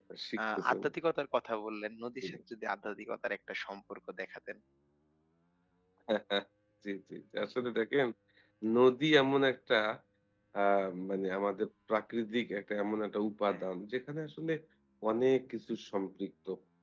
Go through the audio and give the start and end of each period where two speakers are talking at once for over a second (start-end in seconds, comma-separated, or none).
none